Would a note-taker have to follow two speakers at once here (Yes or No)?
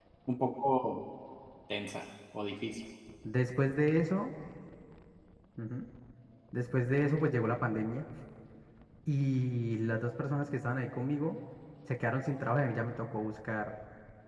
No